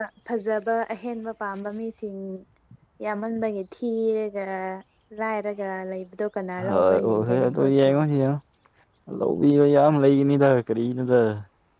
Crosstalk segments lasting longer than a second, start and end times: 6.7-7.9

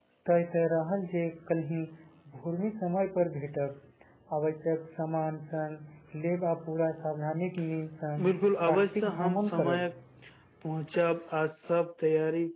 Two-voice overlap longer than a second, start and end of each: 8.2-9.9

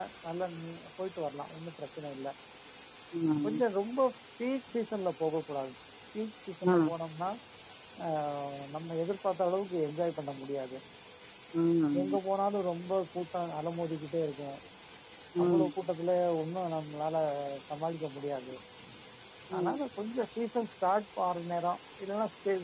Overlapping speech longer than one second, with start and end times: none

